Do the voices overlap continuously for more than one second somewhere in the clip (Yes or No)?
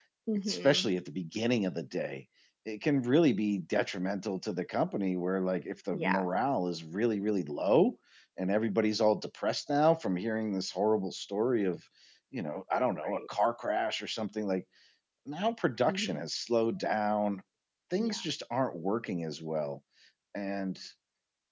No